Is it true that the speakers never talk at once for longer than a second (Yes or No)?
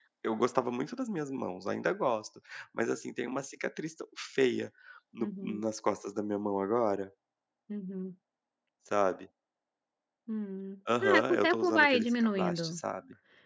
No